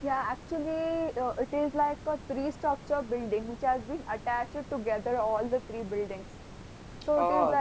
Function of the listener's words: listening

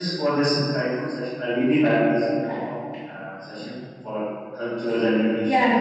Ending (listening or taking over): taking over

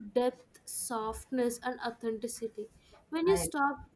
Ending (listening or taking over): listening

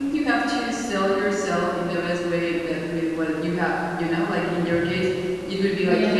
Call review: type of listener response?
listening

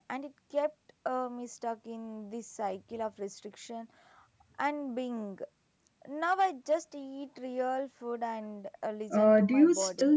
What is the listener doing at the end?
taking over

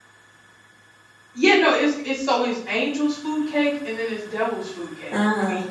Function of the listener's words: listening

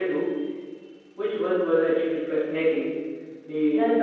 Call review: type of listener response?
listening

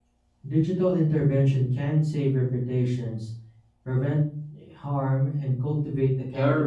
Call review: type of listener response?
taking over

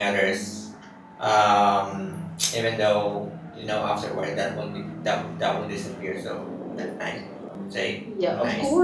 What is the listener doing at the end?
taking over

